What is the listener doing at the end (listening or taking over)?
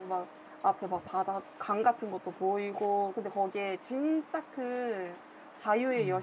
listening